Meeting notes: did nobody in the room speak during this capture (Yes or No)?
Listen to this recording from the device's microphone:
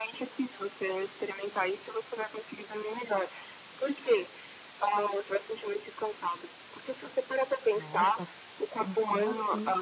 No